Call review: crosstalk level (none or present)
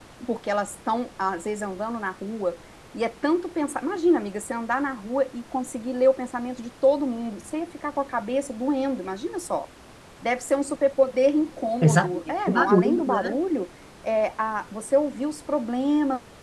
present